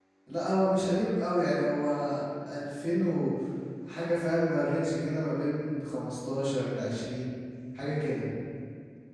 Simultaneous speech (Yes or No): No